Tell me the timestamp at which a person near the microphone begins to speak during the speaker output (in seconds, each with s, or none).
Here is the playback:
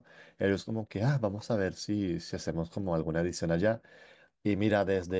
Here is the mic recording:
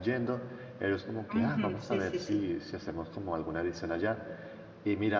1.3 s